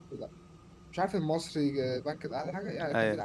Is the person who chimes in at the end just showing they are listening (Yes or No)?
Yes